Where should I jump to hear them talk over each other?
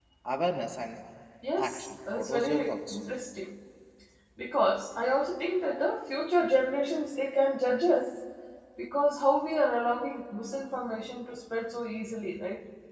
2 s

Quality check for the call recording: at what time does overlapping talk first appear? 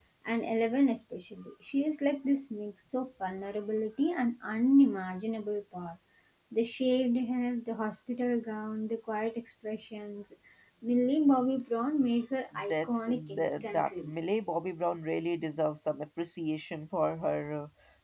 13 s

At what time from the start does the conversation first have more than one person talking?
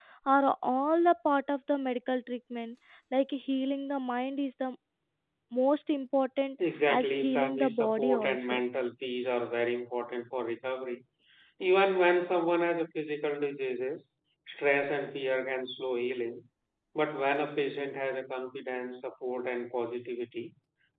7 s

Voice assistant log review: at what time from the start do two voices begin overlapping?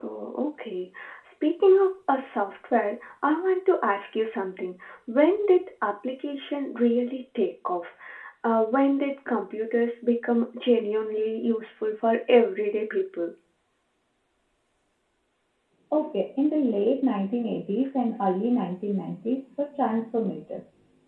none

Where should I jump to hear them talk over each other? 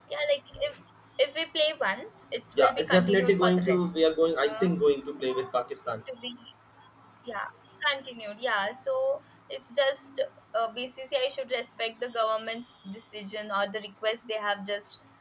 3 s

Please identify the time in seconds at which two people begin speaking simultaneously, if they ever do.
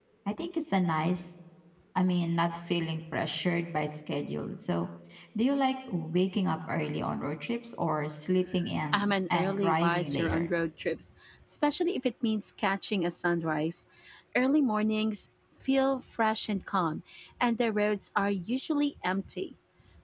9 s

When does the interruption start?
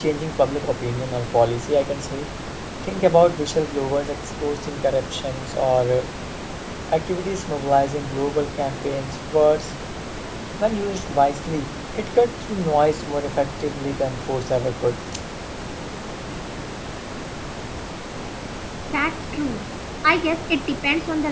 none

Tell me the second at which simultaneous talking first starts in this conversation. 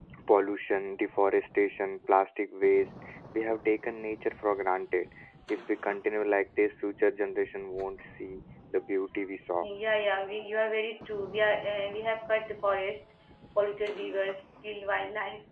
none

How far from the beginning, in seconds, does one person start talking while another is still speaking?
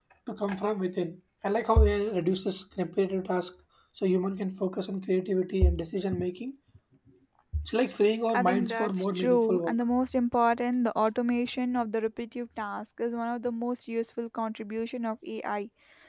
8 s

